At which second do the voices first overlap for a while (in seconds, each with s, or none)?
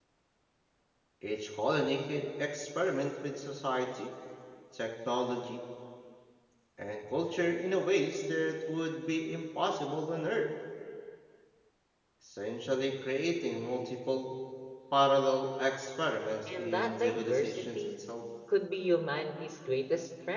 16.5 s